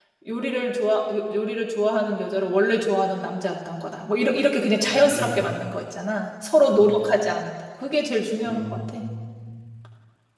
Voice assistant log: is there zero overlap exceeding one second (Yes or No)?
Yes